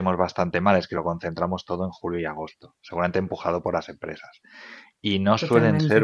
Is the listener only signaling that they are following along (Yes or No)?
Yes